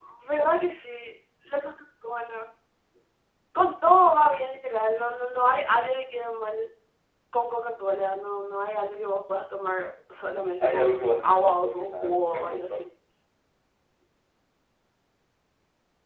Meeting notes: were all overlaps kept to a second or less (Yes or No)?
No